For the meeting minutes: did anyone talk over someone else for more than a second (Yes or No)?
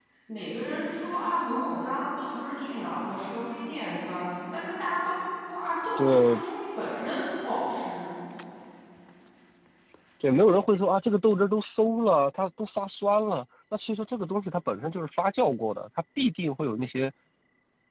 No